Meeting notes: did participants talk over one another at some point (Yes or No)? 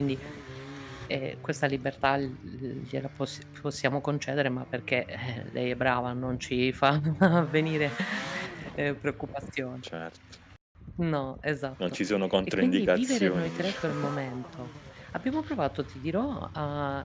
Yes